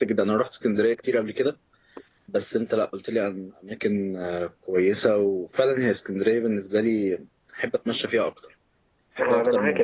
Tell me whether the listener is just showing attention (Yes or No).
No